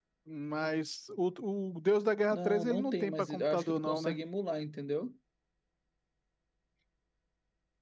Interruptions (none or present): present